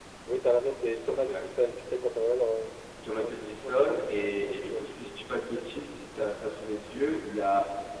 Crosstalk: present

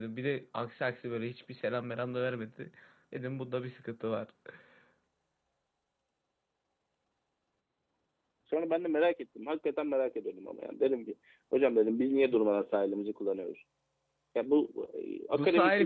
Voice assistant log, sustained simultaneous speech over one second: none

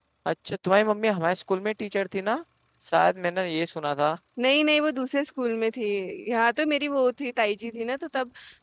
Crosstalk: none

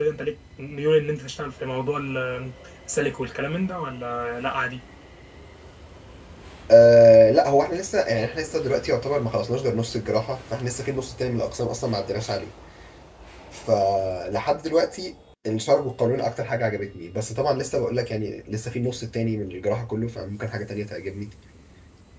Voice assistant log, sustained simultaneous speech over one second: none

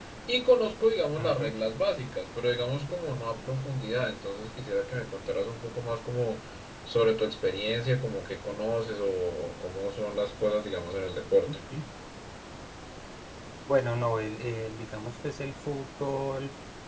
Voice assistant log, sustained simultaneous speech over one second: none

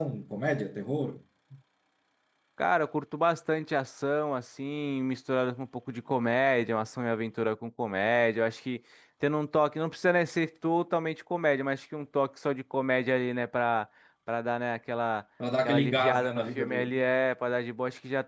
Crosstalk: present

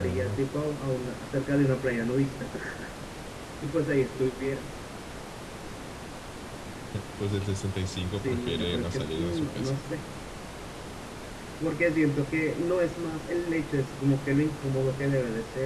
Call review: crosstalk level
present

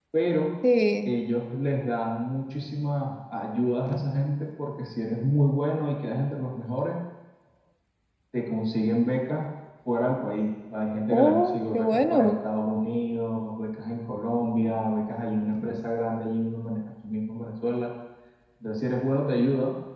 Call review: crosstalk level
present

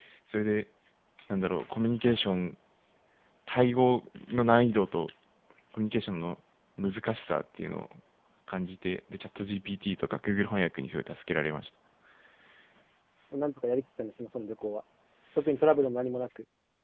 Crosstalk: none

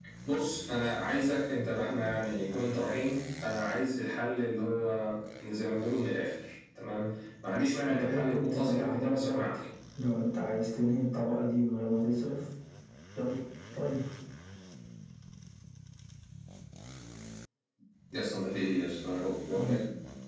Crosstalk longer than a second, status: present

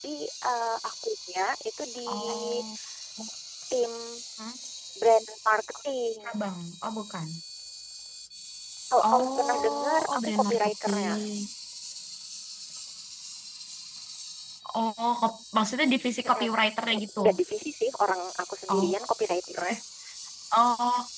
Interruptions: present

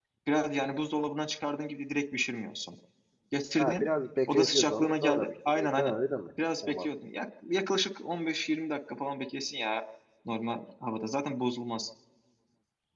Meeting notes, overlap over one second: present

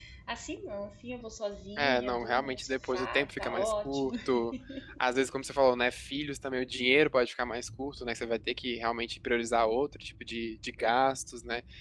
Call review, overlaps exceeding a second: present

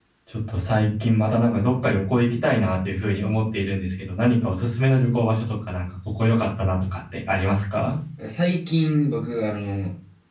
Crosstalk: none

